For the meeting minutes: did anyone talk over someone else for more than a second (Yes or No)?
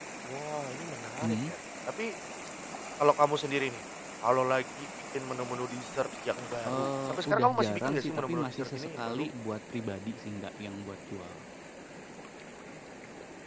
Yes